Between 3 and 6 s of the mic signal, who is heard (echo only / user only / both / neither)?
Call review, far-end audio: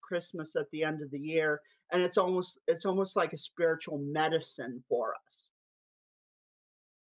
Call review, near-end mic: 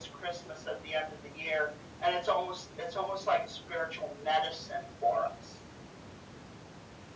echo only